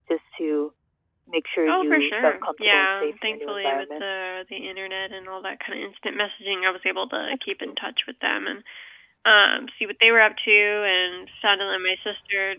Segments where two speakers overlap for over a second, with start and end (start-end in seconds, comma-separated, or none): 1.7-4.0